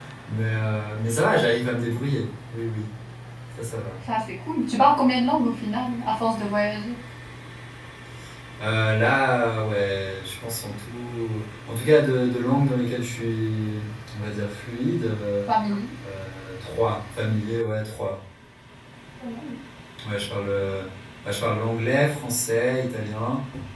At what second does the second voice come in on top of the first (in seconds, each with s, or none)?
none